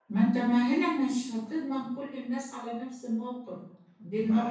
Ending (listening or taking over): taking over